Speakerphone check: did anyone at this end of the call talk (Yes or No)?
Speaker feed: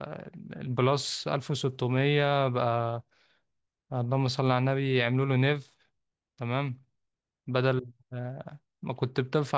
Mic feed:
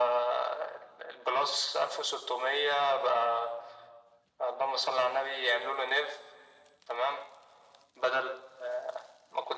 No